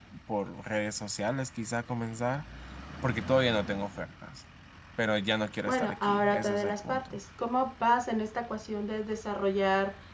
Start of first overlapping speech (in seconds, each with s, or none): 5.7 s